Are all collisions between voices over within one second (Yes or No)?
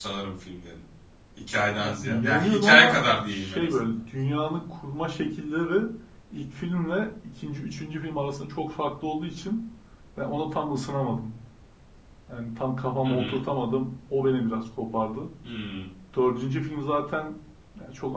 No